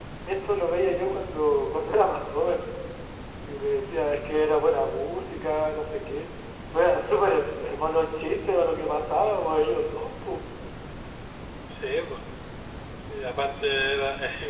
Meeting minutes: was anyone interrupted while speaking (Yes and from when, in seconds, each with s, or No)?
No